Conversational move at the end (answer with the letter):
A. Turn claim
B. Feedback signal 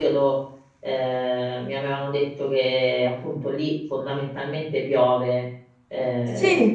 A